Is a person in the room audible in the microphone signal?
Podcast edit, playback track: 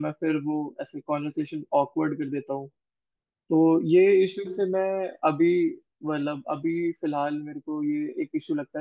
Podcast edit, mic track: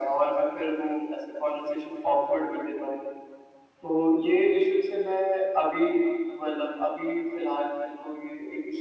No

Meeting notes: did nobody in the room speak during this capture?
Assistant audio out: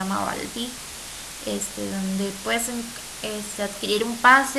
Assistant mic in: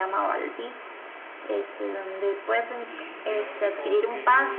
No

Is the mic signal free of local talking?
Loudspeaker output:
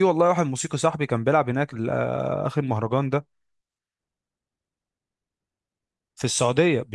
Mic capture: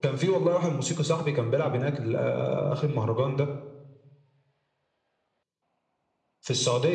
Yes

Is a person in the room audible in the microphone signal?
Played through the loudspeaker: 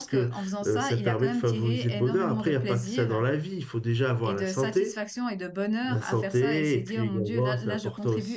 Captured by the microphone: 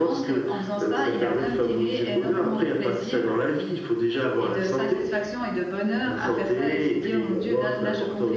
No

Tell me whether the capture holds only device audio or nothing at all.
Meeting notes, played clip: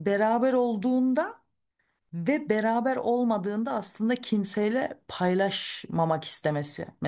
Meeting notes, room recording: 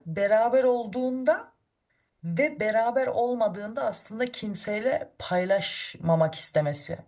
Yes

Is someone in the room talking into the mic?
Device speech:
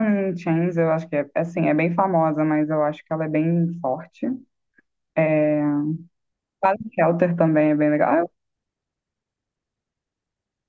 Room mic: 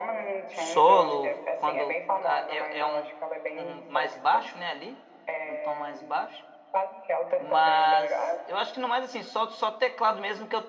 Yes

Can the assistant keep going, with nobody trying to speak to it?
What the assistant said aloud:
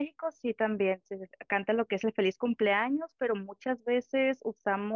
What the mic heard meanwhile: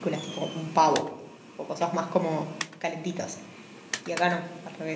No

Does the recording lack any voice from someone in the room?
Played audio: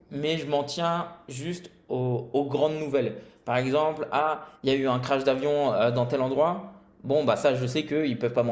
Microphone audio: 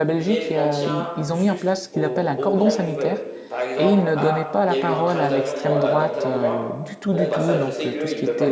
No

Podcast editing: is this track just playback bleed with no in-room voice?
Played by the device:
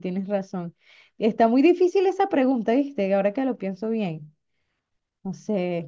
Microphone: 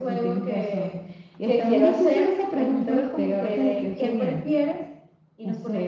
No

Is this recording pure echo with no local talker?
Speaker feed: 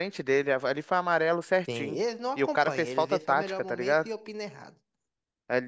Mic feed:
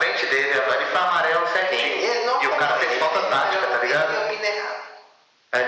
Yes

